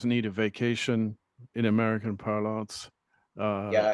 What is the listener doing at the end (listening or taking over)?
taking over